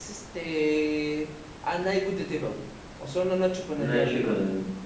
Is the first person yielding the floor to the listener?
Yes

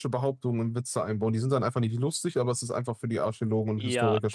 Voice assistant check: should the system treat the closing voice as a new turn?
Yes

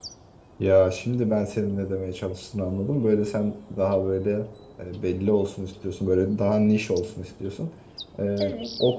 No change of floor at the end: Yes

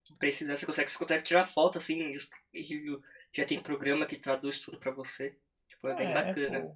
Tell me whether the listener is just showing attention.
No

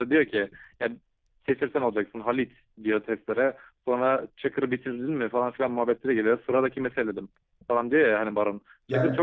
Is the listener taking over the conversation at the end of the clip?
No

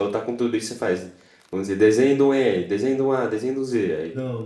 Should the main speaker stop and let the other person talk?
Yes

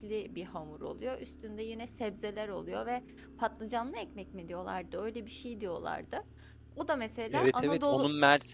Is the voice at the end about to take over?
Yes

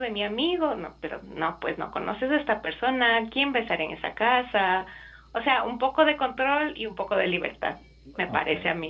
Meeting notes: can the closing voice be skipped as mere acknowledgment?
No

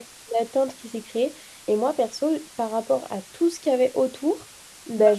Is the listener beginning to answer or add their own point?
No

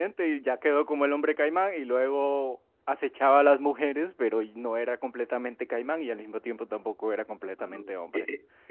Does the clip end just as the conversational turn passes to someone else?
Yes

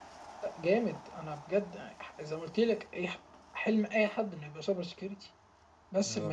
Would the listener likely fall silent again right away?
Yes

